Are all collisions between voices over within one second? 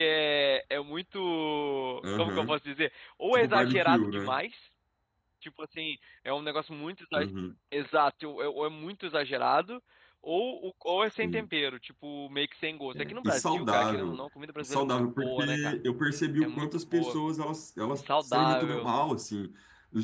No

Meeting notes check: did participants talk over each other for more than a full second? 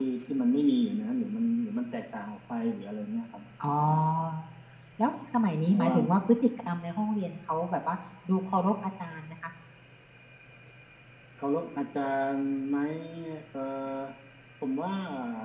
No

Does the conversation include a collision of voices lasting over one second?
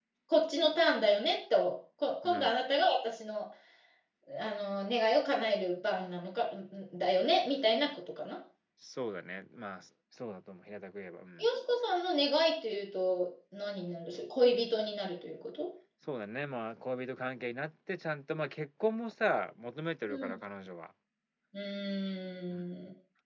No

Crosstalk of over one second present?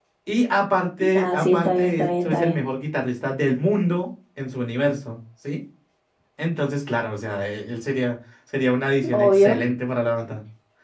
Yes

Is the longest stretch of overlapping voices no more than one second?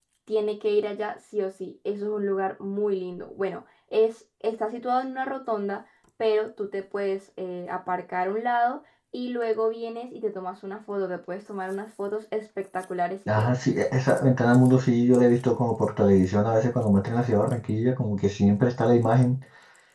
Yes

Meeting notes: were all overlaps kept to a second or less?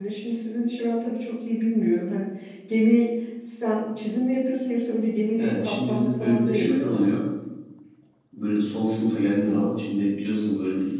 No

